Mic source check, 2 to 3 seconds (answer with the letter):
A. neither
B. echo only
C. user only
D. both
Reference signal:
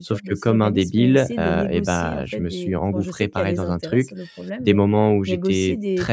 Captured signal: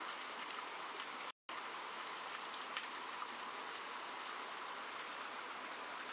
A